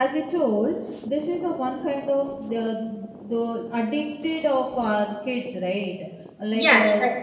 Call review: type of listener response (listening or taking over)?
listening